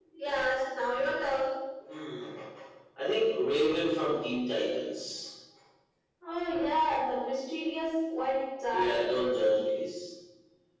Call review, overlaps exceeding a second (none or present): none